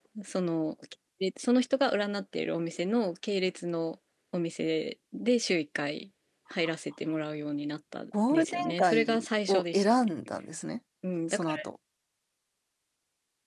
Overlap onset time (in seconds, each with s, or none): 8.3 s